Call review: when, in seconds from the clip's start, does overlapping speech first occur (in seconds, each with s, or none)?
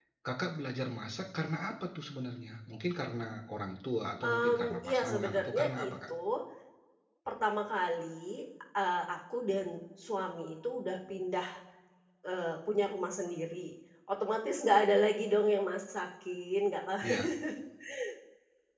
4.3 s